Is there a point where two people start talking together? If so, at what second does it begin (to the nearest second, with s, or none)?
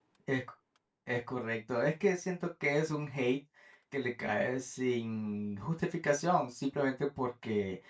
none